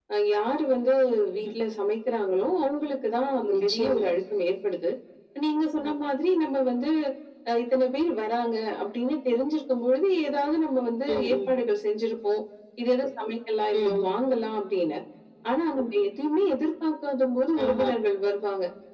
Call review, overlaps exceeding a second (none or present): none